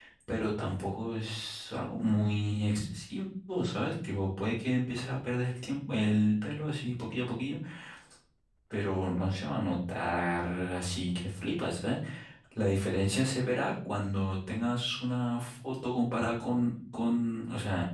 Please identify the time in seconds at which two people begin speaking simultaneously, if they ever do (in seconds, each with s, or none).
none